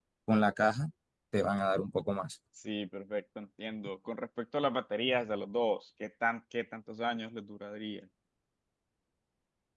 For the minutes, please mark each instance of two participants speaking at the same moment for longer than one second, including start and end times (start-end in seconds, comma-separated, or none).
none